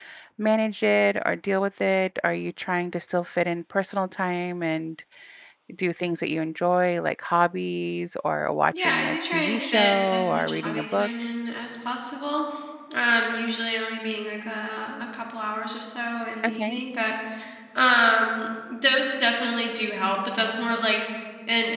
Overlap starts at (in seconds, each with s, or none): 8.8 s